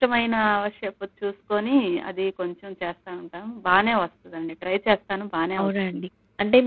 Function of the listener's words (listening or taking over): taking over